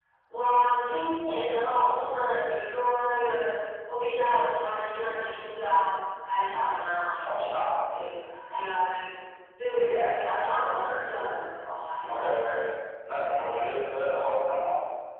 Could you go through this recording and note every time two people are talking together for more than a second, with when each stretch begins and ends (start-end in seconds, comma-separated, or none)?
none